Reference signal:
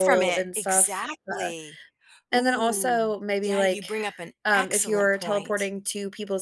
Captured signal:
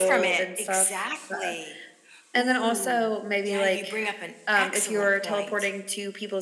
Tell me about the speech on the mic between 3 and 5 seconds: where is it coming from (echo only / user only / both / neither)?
echo only